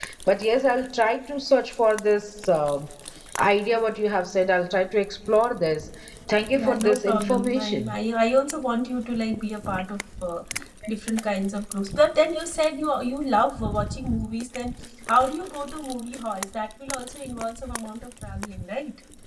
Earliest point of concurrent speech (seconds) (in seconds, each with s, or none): 6.6 s